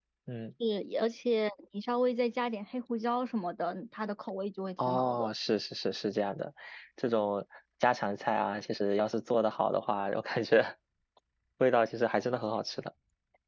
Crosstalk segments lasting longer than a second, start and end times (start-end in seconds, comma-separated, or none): none